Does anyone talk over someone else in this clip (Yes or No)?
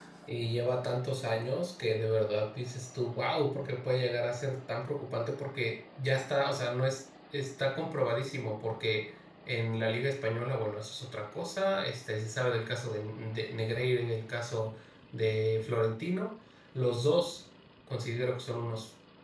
No